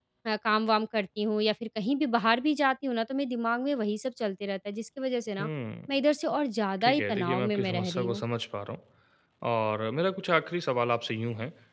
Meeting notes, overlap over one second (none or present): present